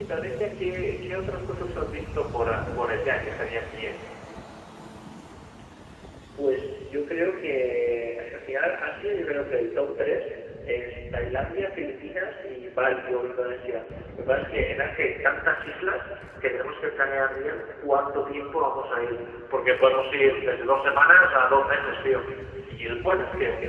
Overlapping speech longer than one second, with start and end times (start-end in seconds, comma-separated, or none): none